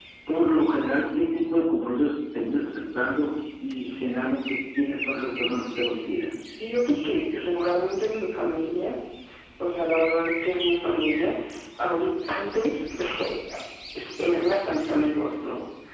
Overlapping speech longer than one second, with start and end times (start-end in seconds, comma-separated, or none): none